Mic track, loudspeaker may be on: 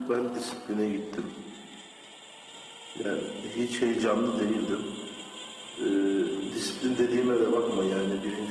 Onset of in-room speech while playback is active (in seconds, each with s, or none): none